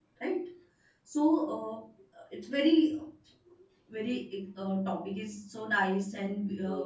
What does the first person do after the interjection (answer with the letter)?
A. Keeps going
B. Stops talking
B